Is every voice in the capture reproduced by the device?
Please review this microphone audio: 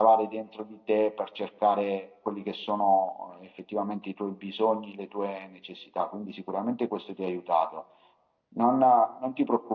No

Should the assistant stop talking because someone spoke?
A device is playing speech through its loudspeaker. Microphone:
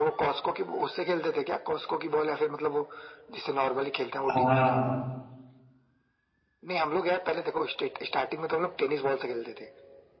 Yes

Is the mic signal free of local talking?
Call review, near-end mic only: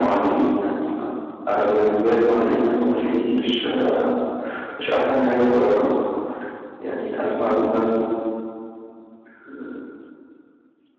Yes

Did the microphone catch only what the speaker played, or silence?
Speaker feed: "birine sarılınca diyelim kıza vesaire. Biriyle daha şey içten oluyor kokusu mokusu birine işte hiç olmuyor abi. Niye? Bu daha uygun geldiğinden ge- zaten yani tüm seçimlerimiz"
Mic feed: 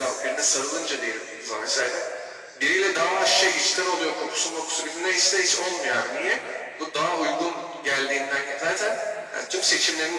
Yes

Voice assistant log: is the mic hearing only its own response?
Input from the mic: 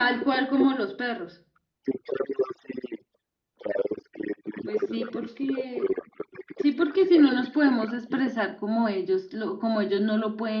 No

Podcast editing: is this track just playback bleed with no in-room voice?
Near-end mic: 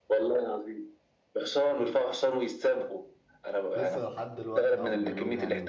No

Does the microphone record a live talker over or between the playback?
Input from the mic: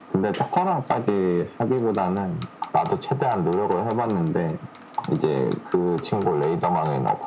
No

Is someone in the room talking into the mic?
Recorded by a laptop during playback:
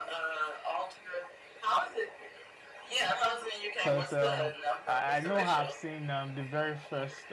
Yes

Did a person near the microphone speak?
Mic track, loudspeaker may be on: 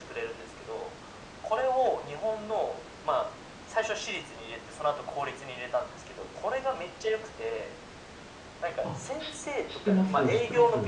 Yes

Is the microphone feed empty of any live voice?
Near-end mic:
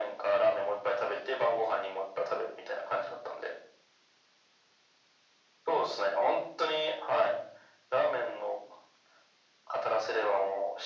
Yes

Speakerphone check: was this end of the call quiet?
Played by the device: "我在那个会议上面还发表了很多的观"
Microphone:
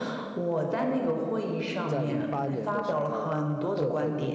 No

